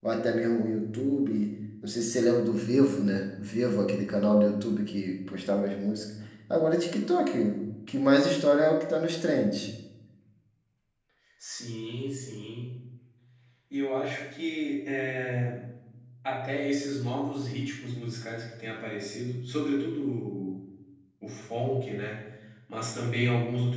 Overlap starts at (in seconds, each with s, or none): none